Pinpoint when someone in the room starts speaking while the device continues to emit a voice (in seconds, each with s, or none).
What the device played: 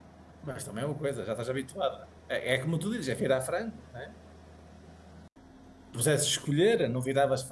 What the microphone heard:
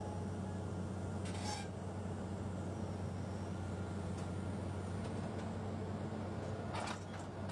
none